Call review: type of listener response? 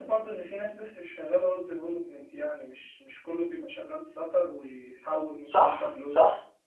taking over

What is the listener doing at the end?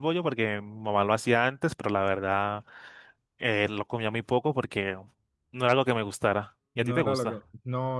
taking over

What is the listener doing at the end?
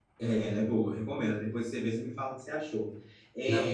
listening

